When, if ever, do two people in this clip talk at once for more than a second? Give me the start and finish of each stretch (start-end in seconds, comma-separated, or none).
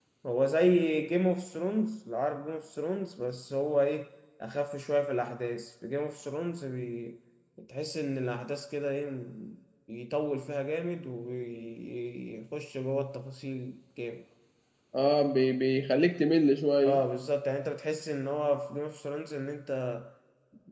none